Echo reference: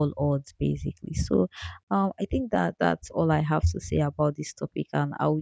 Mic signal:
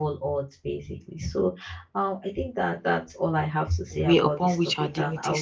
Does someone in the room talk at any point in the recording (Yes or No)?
Yes